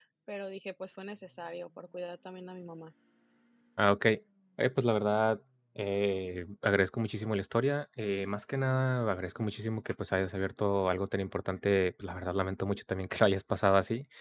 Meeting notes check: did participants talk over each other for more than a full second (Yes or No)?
No